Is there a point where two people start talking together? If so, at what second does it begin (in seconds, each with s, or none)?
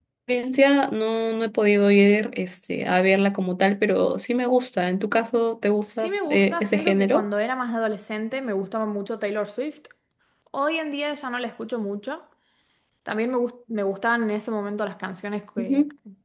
5.9 s